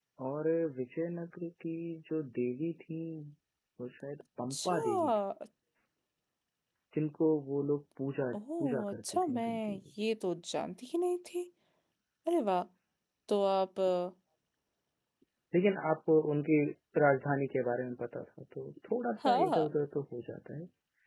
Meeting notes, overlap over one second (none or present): present